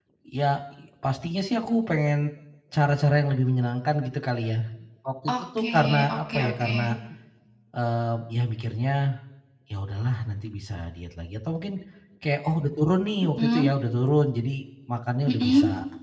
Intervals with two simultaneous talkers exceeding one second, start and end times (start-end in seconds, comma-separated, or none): 5.4-6.7